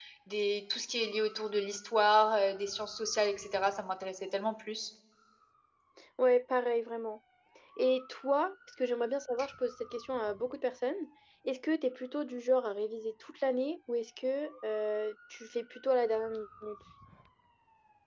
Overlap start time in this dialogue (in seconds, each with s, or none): none